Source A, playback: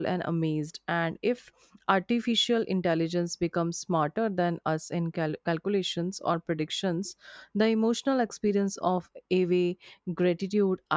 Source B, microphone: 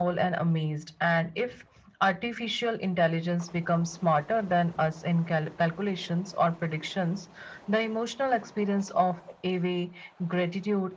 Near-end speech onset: none

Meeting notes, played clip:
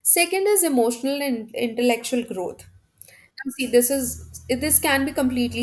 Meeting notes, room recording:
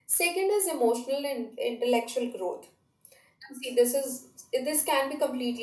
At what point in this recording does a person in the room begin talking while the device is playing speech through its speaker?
none

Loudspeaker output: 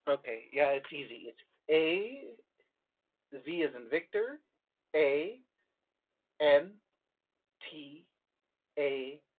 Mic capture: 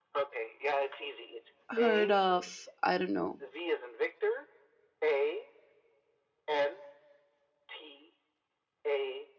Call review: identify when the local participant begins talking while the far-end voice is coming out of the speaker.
1.7 s

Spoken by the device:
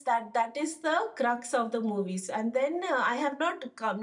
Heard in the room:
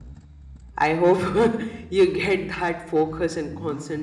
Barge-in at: 0.8 s

